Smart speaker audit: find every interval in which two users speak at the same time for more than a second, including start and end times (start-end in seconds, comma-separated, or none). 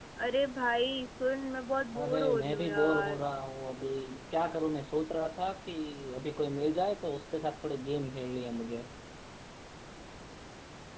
2.0-3.2